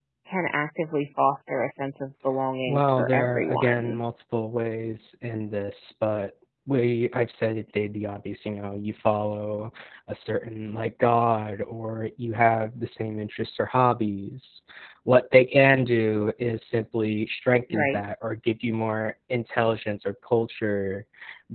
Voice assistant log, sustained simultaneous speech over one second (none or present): present